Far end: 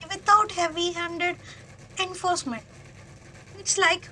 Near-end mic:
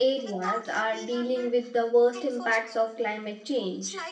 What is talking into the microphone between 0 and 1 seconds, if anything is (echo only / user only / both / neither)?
both